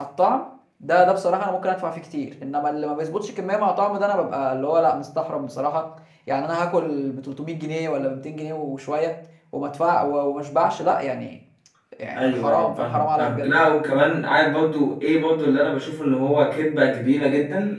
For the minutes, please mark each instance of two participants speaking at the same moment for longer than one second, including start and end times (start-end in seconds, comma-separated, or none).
12.2-13.5